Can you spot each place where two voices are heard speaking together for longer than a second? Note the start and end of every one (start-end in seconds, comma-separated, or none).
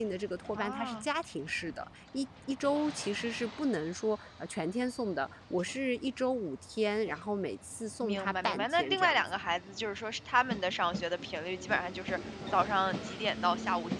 8.0-9.2